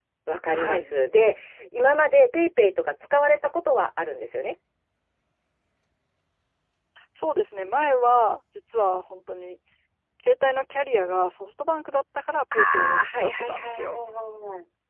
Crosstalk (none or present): present